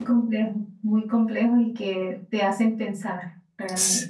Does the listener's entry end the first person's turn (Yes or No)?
Yes